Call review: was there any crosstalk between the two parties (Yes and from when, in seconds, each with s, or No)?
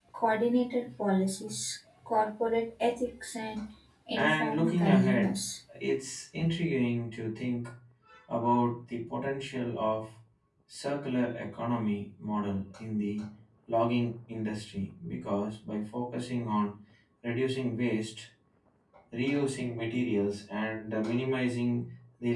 Yes, from 4.2 s